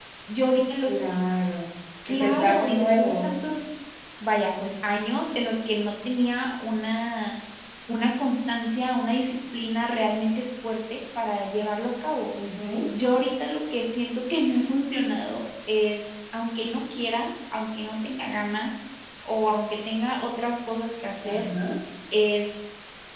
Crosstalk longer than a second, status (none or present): present